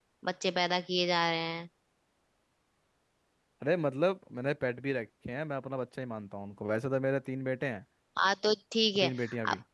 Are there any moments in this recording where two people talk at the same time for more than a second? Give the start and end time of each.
none

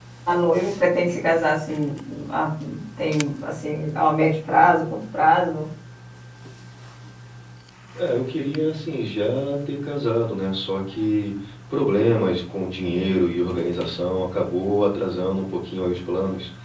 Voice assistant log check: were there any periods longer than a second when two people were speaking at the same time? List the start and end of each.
none

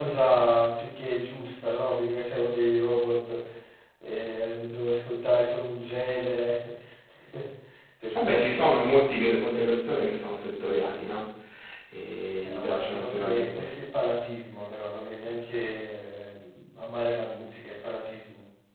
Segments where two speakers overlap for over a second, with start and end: 12.4-13.7

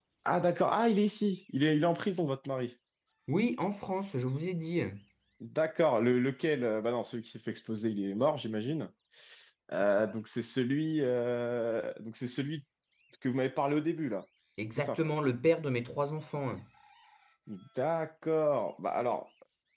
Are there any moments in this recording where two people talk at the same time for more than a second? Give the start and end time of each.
none

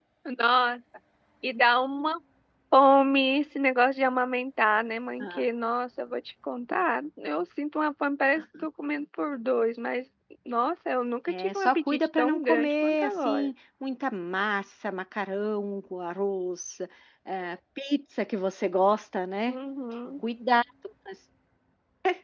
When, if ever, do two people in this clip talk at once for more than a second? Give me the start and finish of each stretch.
11.3-13.5

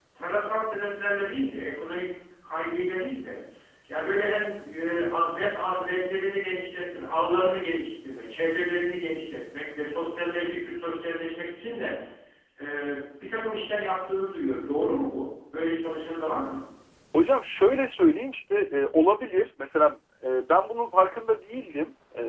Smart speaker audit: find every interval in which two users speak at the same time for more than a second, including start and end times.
none

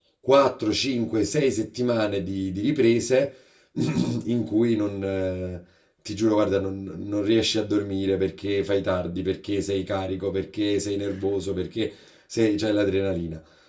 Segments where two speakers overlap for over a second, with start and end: none

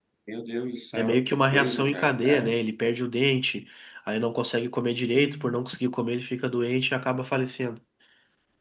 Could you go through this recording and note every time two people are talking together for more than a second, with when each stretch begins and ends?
0.9-2.6

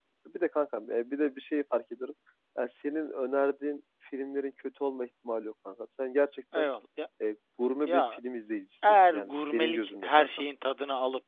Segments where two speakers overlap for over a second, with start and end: 8.8-10.4

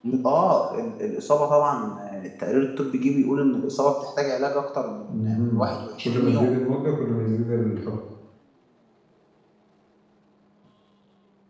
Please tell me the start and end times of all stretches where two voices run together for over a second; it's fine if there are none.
none

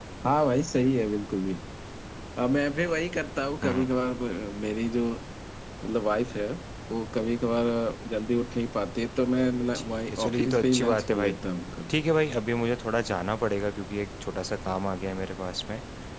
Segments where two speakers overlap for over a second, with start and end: 9.8-11.3

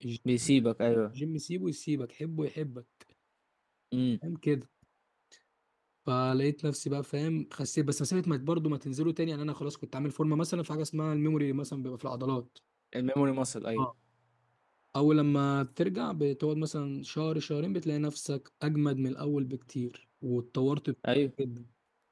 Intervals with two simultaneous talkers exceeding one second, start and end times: none

